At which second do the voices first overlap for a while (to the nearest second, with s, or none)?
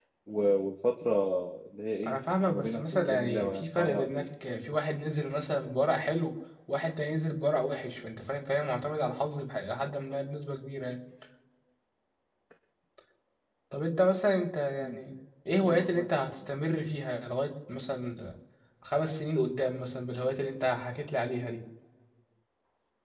2 s